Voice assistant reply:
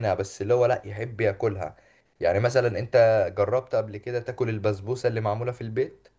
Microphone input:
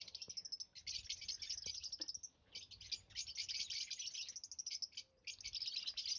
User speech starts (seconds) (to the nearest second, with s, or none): none